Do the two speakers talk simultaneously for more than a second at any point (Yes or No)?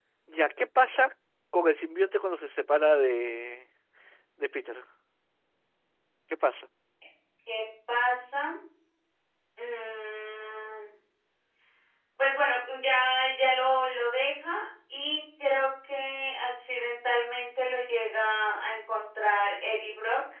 No